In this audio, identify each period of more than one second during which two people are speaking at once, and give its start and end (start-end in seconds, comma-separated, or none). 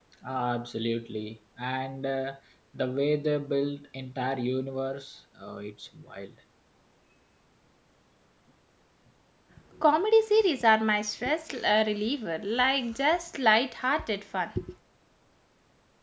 none